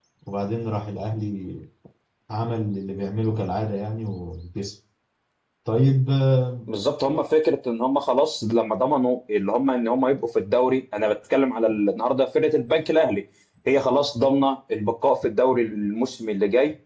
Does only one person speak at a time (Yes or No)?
Yes